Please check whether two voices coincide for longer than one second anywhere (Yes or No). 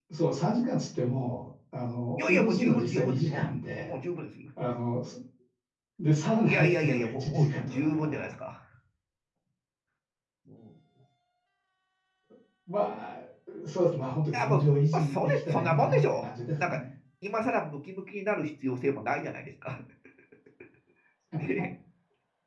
Yes